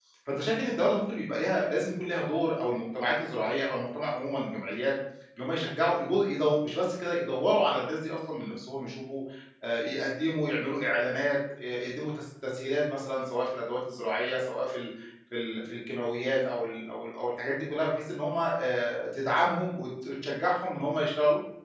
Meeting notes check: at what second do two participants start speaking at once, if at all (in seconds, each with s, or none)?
none